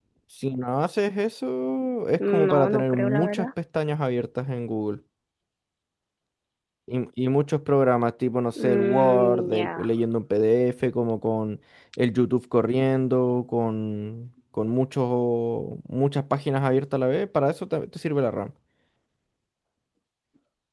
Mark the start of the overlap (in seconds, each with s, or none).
2.2 s